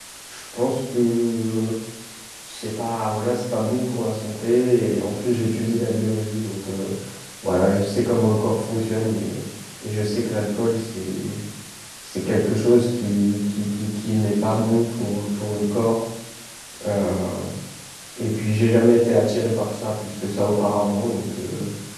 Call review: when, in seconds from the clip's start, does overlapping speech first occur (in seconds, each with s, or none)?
none